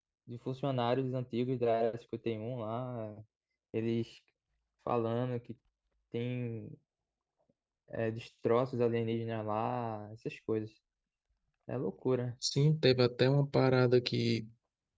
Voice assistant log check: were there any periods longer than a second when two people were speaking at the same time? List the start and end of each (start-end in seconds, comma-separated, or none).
none